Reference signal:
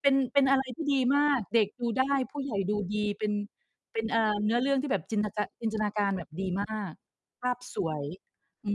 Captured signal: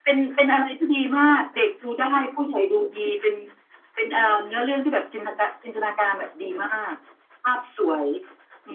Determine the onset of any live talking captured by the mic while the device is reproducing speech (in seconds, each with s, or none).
none